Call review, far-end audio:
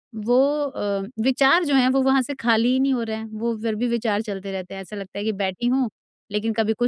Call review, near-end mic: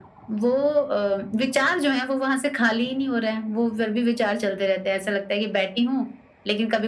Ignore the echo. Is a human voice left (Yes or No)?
No